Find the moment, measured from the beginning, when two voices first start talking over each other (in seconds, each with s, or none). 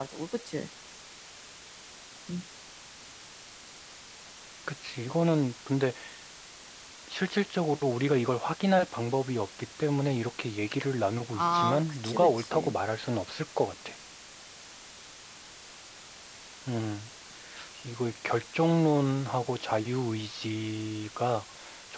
11.3 s